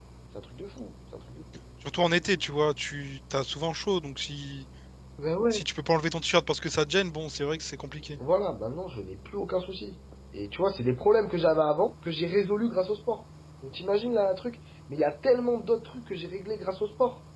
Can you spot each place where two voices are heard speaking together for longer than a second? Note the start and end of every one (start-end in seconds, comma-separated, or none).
none